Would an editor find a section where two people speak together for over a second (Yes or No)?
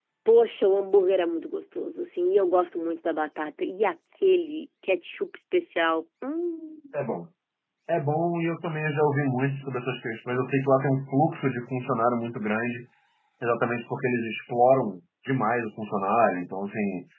No